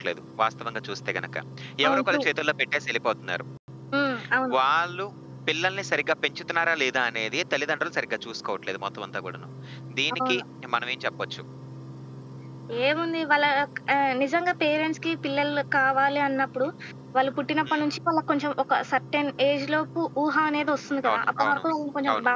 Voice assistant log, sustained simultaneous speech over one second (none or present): none